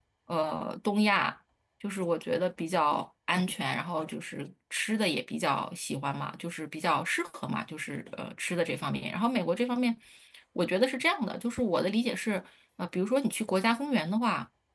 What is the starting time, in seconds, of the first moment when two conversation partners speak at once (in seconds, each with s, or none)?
none